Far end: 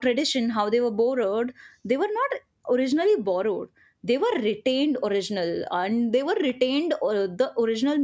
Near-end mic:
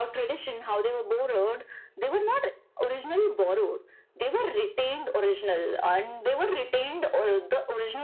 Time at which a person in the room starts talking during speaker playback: none

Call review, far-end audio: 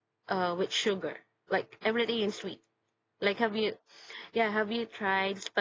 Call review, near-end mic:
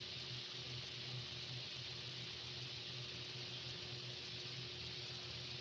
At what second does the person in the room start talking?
none

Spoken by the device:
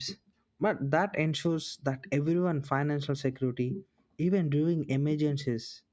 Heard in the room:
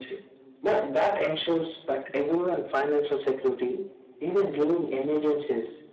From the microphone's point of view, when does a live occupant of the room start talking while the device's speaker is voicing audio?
none

